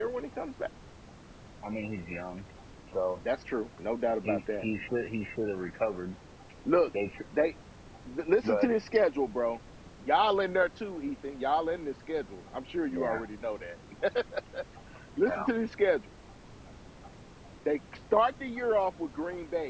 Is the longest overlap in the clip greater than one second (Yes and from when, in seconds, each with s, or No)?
No